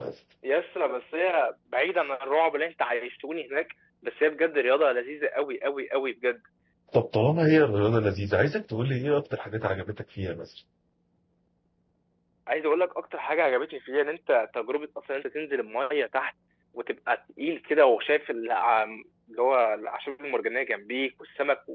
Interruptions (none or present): none